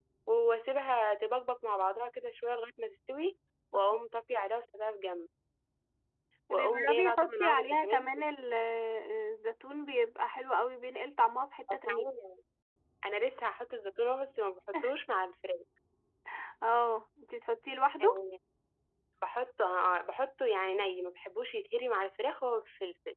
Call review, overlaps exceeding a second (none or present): present